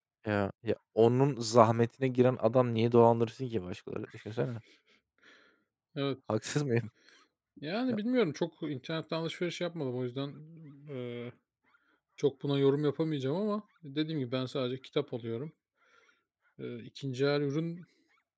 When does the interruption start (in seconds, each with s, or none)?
none